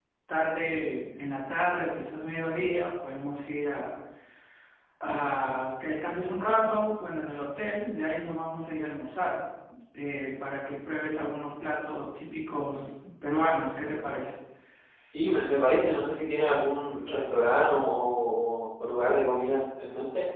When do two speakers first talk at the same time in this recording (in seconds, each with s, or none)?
none